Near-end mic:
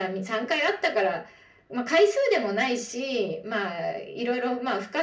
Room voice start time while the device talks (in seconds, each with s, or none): none